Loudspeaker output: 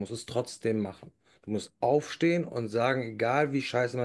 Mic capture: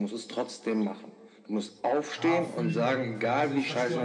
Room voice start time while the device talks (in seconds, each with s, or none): 2.1 s